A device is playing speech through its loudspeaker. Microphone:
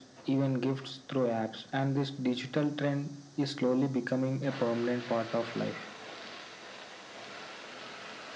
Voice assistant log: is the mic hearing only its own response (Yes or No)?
Yes